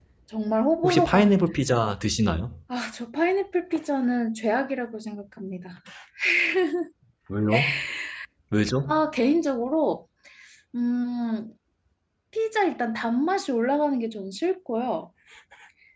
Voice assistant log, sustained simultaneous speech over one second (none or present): none